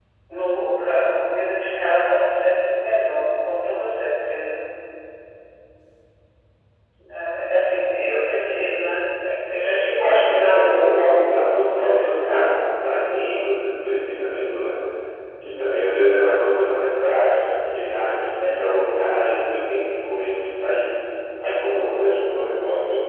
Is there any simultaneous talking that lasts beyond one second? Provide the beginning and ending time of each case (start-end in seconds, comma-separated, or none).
10.5-12.6